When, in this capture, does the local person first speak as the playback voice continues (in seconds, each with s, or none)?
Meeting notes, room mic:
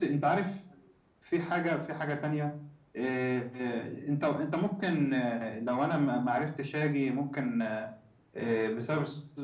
none